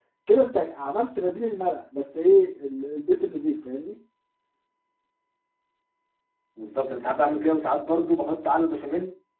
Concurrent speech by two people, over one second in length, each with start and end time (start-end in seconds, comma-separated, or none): none